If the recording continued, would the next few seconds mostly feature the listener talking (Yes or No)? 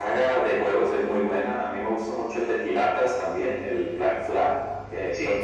No